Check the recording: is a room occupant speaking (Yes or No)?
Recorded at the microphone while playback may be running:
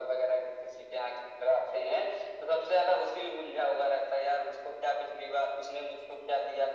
No